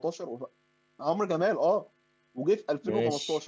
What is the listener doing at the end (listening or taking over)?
listening